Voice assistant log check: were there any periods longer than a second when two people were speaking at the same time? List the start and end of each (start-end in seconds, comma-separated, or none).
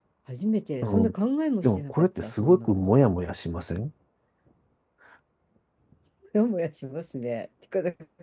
1.6-2.9